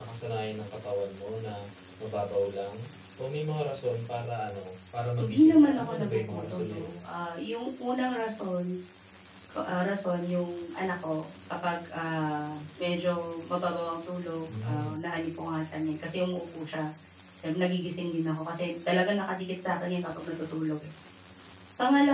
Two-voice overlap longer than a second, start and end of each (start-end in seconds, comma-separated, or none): 5.2-7.0